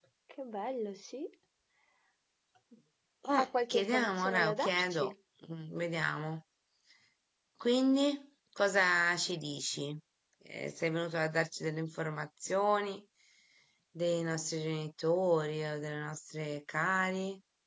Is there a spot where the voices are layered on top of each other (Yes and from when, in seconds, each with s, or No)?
Yes, from 3.4 s